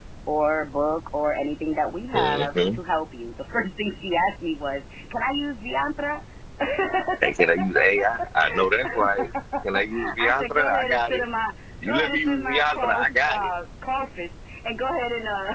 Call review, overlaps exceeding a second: present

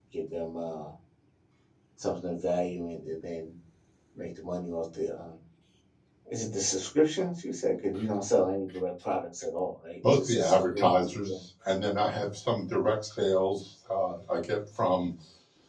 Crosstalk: present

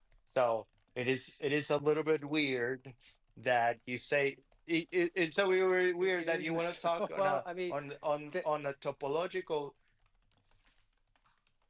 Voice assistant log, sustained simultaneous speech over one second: present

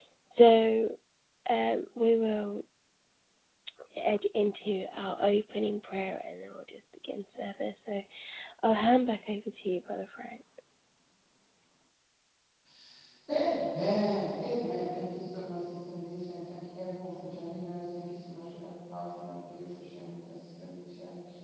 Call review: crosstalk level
none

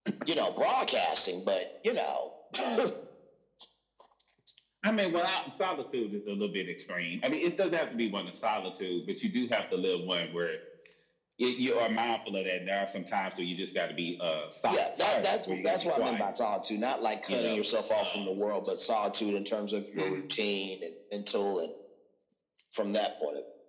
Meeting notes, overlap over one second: present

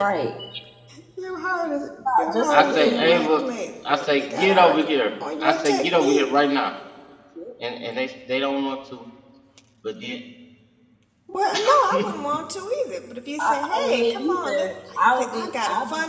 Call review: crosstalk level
present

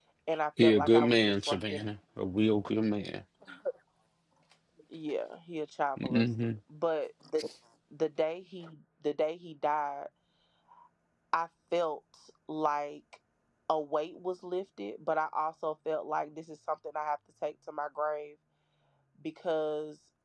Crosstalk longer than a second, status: present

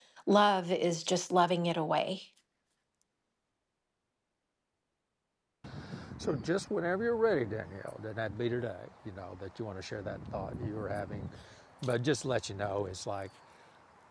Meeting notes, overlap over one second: none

